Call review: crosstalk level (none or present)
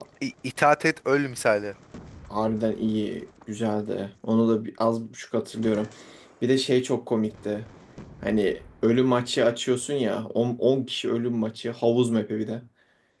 none